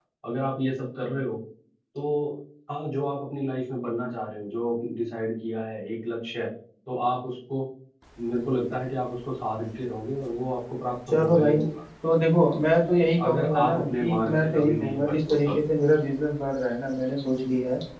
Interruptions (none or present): present